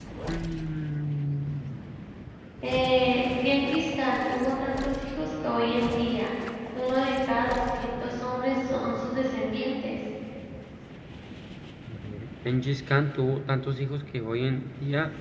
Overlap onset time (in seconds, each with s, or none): none